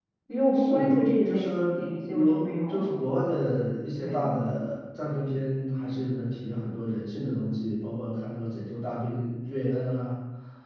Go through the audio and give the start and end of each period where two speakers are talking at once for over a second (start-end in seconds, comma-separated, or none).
1.3-3.0